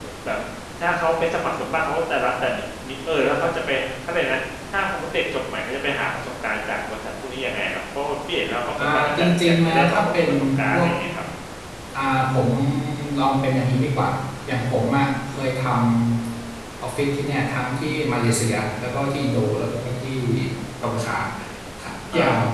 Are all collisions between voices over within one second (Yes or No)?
No